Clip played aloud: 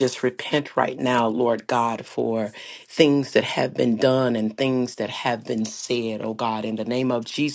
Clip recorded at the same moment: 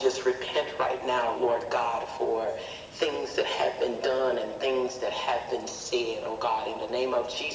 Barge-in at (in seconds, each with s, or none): none